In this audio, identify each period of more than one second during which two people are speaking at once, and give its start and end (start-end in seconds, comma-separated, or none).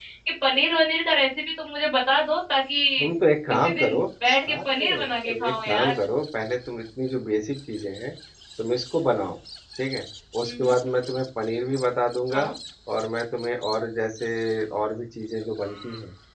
4.6-5.9